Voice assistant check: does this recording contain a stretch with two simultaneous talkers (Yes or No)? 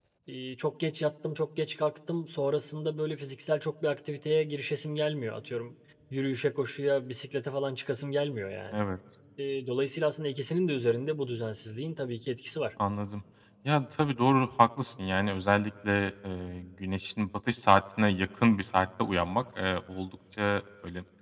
No